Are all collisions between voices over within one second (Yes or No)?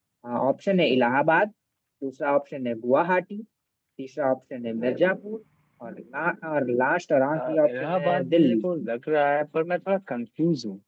No